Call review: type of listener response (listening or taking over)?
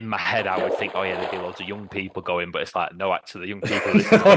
listening